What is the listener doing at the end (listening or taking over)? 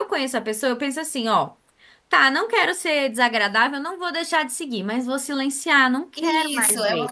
taking over